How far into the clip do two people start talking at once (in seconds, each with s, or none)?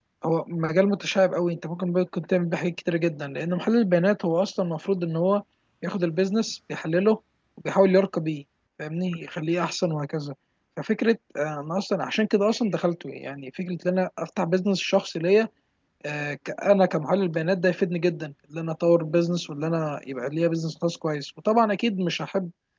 none